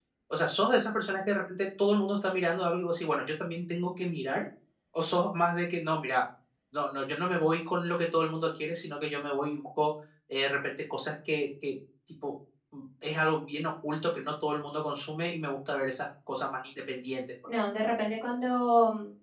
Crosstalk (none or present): none